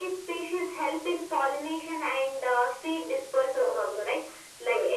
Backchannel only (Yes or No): Yes